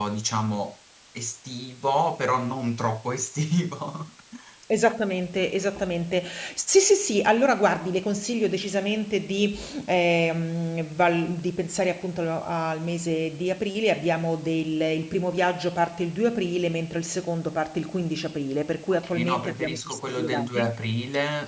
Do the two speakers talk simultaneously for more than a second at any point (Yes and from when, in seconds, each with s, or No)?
Yes, from 18.9 s